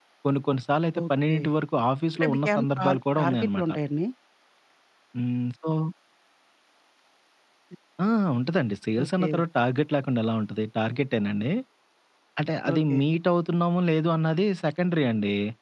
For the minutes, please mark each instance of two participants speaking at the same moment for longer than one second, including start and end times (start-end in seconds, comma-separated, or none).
2.2-3.7